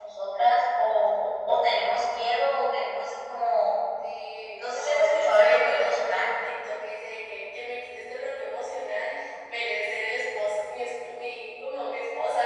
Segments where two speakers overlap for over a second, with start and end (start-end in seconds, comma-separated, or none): 4.6-6.3